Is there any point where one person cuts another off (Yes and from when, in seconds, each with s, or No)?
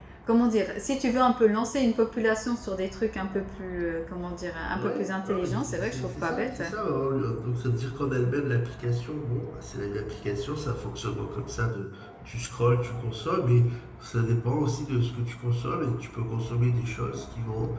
Yes, from 4.8 s